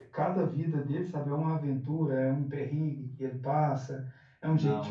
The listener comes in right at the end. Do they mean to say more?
No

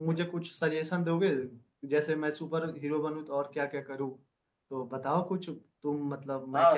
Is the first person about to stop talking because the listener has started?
Yes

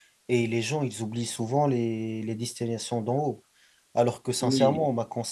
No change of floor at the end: Yes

